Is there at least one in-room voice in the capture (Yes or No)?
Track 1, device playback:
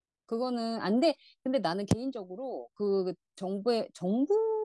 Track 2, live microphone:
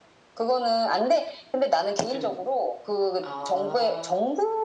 Yes